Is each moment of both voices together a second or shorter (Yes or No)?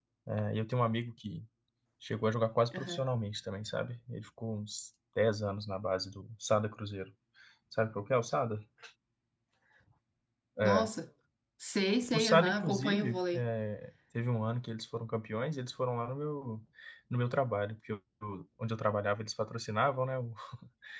No